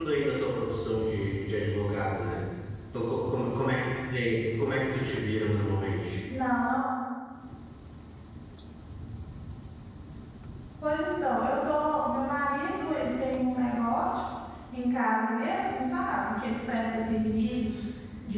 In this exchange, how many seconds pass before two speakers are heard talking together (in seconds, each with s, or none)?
none